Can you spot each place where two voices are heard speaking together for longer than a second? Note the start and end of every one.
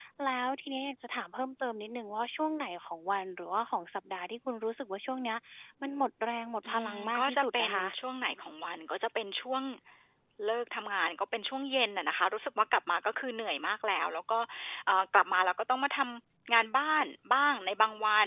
6.7-7.9

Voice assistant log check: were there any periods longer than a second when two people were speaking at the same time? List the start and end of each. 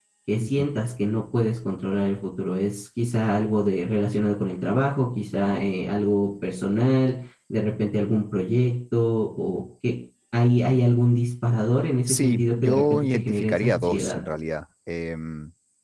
12.1-14.2

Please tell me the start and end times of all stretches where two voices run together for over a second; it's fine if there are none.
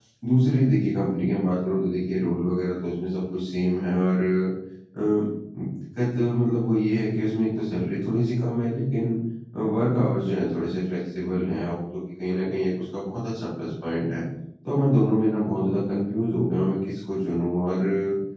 none

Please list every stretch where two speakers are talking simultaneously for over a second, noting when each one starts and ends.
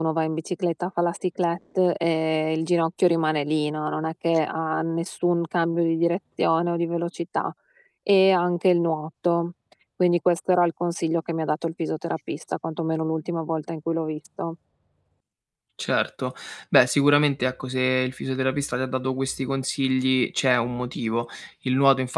none

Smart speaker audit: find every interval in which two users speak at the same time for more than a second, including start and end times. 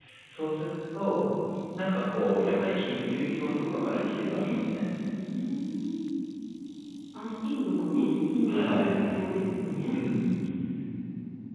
3.0-4.6

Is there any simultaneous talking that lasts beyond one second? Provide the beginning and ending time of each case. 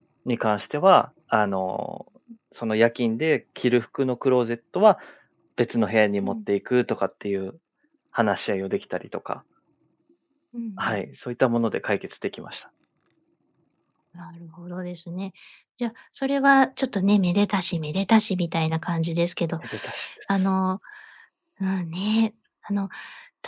none

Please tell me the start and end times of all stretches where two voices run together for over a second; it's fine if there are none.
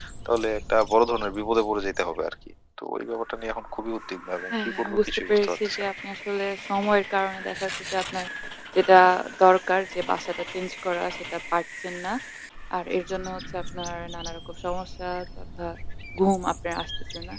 4.5-5.9

